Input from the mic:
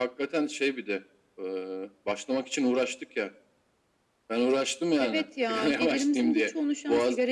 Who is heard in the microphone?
echo only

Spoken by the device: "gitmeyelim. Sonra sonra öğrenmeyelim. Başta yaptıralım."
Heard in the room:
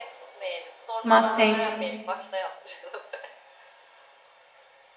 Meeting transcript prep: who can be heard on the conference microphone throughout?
both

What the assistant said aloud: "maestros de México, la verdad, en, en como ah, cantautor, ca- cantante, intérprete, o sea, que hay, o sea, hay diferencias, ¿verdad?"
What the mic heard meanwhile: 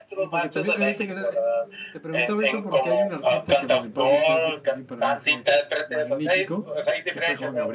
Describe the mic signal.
both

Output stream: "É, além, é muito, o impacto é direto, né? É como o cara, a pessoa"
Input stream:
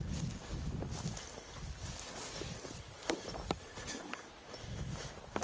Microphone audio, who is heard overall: neither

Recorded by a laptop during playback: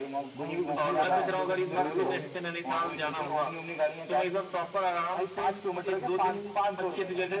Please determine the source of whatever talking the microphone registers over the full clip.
both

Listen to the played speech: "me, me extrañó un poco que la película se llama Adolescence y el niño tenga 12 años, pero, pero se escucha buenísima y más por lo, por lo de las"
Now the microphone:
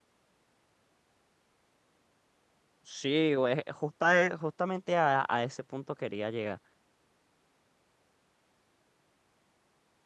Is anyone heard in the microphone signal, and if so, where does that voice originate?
user only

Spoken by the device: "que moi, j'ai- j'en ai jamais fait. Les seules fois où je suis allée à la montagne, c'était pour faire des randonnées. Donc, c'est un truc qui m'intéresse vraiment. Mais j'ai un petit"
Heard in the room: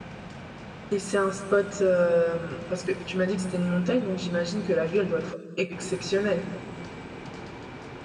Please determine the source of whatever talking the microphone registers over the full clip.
user only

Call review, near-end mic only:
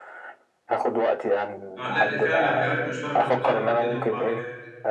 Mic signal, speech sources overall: both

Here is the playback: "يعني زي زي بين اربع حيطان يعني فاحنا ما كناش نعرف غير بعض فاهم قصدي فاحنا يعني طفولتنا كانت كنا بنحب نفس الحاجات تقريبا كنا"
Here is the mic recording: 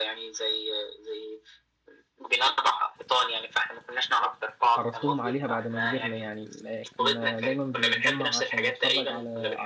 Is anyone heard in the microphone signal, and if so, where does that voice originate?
both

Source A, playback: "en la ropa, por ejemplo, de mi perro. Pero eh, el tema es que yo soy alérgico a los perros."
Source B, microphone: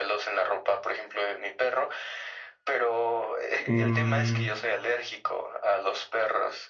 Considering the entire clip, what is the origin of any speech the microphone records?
both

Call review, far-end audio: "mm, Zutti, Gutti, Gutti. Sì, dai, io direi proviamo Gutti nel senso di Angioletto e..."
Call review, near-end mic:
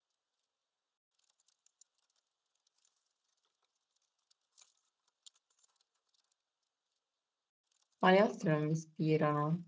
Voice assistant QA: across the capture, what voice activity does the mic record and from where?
user only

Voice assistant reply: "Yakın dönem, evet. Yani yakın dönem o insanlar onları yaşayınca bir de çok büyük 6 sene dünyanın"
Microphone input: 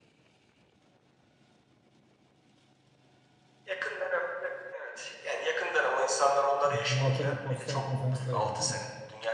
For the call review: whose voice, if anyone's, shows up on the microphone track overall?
both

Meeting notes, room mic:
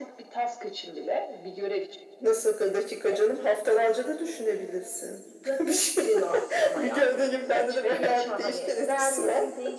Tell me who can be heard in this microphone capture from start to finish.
echo only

